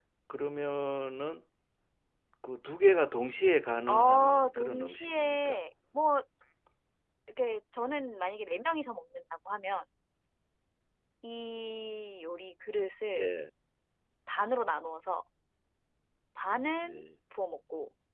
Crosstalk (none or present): present